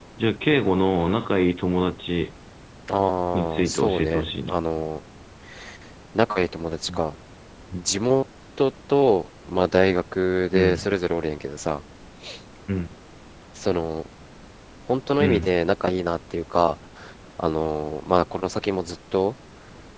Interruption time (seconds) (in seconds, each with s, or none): 3.3 s